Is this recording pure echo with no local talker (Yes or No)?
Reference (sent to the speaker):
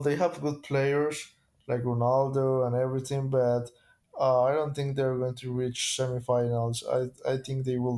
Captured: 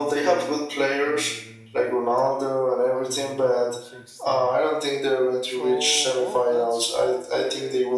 No